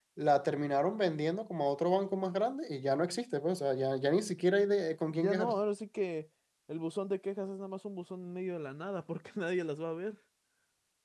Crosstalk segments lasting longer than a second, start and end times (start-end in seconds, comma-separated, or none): none